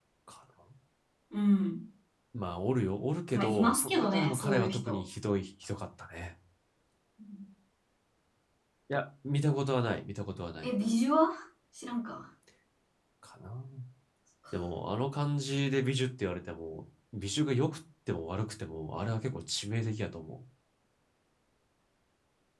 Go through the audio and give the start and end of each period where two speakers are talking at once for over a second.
3.3-5.0

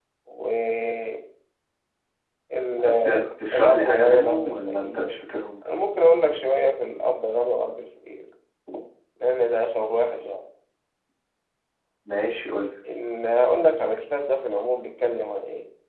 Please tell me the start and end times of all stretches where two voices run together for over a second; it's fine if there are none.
3.5-5.2

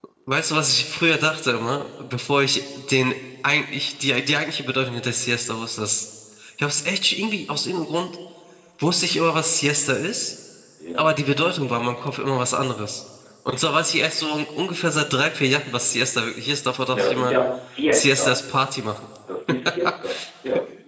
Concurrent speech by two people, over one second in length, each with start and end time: none

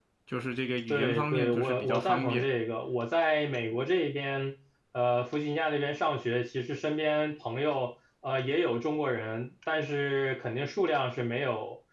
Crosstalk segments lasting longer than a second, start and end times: 0.9-2.4

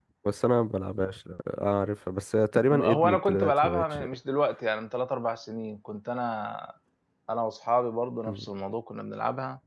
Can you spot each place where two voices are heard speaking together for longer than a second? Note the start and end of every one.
2.7-4.0

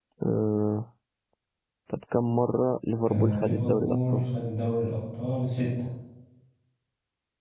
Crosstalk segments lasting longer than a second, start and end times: 3.1-4.3

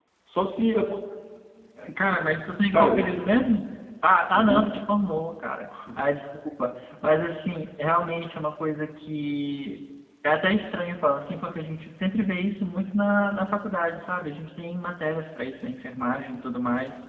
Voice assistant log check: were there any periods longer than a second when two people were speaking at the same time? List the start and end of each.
none

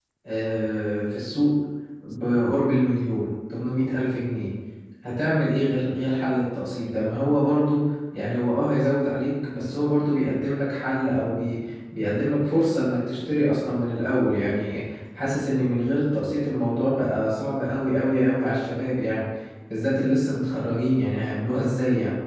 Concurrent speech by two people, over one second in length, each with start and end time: none

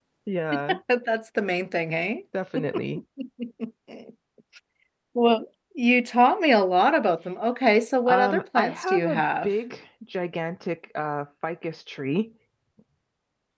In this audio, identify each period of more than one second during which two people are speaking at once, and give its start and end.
8.1-9.5

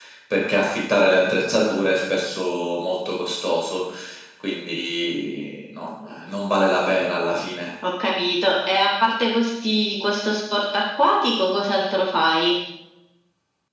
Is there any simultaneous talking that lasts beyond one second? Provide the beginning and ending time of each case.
none

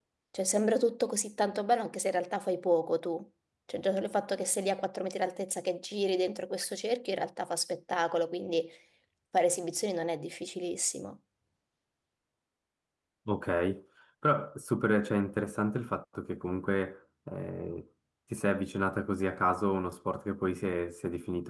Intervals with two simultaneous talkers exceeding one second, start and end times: none

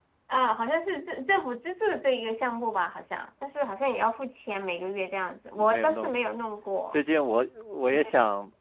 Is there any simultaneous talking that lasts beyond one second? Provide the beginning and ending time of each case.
none

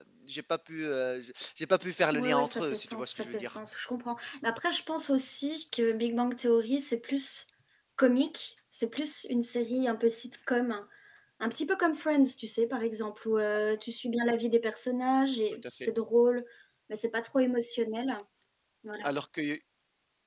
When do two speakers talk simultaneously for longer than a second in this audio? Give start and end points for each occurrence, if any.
2.1-3.6

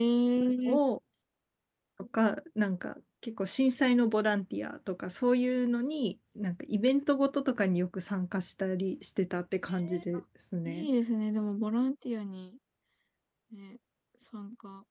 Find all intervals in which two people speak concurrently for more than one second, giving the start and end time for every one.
none

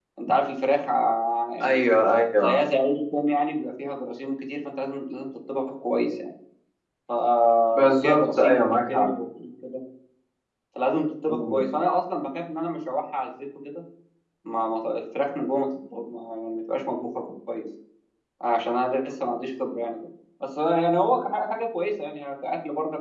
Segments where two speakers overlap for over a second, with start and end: 7.7-9.1

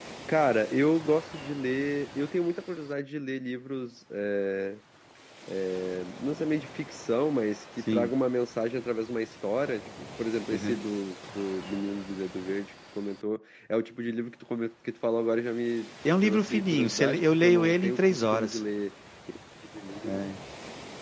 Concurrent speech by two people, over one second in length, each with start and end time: 16.2-18.6

